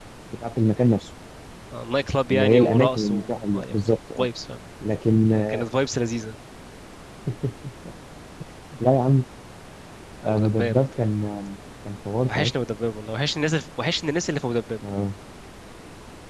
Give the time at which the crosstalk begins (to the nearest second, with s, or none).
2 s